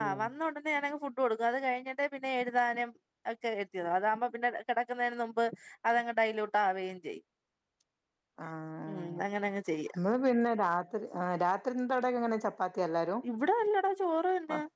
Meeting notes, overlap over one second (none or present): none